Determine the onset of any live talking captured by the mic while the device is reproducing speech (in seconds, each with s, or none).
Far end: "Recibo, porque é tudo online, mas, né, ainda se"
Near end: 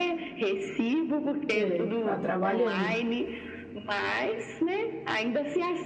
1.5 s